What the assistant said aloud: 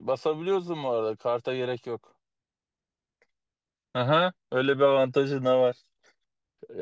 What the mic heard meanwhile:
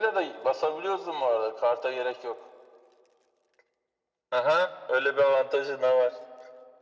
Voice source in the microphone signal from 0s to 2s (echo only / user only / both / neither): echo only